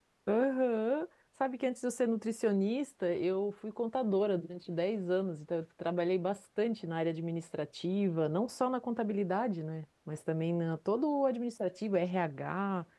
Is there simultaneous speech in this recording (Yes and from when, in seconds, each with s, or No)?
No